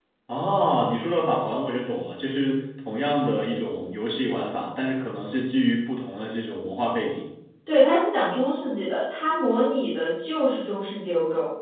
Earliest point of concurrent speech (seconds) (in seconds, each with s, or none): none